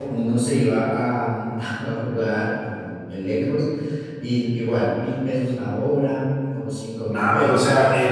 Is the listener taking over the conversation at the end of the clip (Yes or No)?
Yes